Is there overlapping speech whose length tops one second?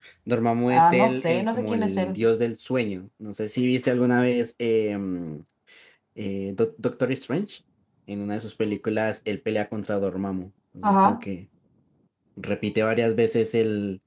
Yes, from 0.7 s

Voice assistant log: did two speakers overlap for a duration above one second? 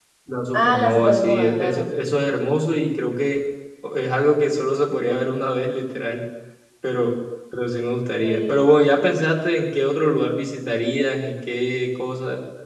Yes, from 0.5 s

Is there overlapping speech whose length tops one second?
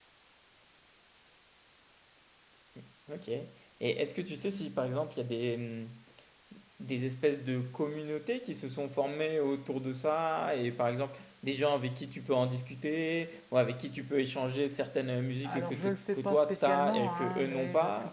Yes, from 15.4 s

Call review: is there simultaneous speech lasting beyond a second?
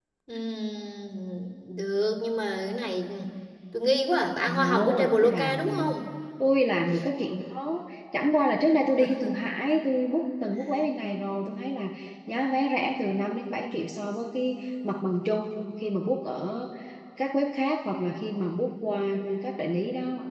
Yes, from 4.5 s

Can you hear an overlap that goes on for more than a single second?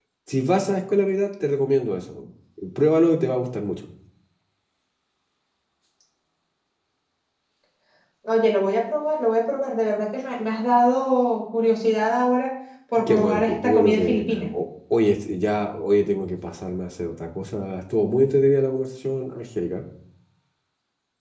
Yes, from 13.0 s

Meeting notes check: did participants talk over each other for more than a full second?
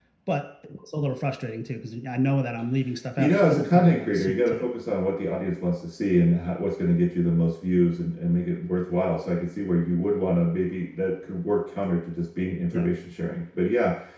Yes, from 3.2 s

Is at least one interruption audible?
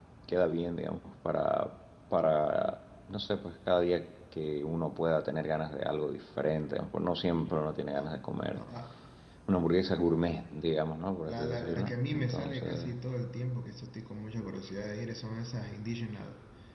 Yes, from 11.2 s

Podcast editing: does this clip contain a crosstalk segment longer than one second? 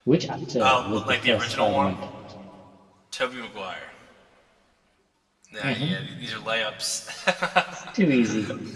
Yes, from 0.6 s

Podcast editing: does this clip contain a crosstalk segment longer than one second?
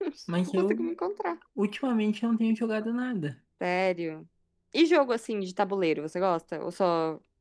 No

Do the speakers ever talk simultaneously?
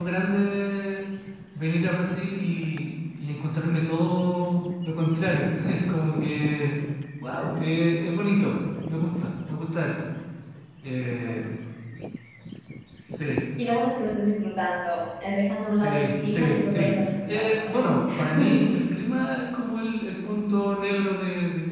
Yes, from 15.7 s

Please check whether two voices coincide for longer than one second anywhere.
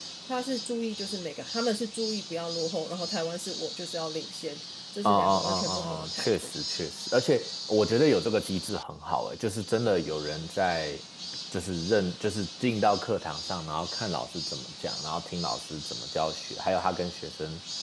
Yes, from 5.0 s

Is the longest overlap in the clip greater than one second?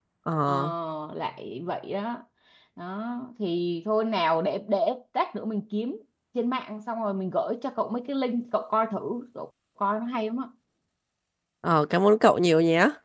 No

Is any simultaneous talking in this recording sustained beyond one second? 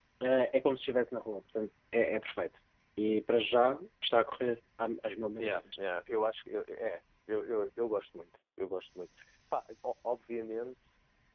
No

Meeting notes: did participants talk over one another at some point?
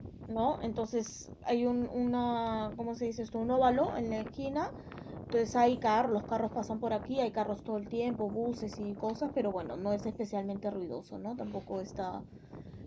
No

